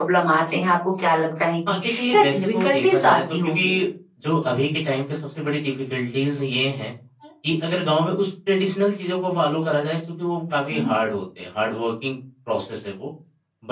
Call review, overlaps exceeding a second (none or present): present